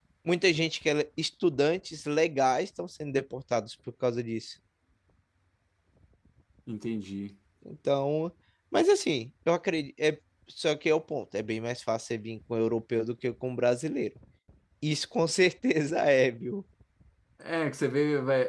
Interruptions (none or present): none